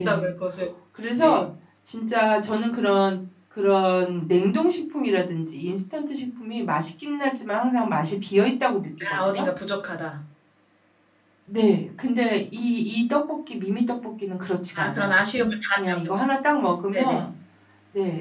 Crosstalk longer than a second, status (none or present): none